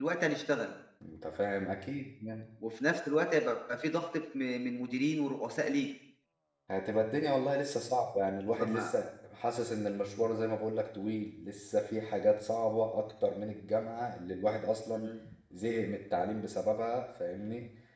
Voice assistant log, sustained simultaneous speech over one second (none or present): none